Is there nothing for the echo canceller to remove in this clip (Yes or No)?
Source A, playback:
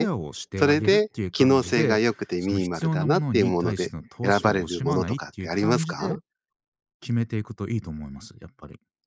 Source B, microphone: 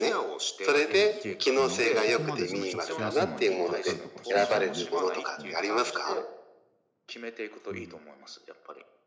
No